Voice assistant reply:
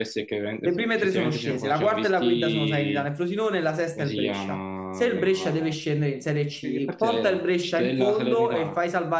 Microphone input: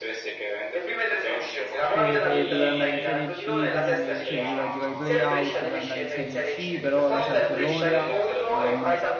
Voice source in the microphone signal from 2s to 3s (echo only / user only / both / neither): both